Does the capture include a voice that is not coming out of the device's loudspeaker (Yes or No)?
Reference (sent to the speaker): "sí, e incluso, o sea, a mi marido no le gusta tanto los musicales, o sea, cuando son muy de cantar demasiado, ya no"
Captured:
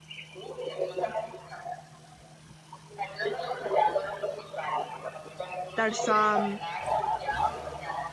Yes